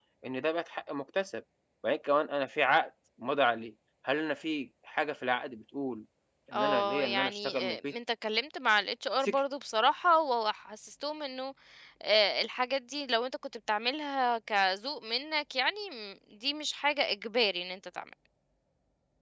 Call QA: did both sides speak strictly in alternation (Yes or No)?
No